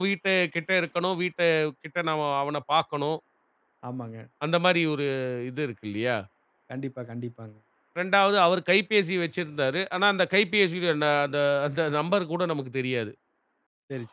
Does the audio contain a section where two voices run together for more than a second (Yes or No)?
No